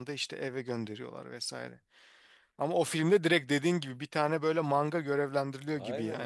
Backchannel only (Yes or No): No